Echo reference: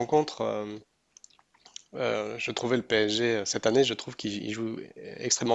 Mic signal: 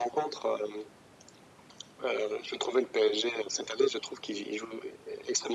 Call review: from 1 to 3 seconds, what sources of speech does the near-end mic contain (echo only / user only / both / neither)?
echo only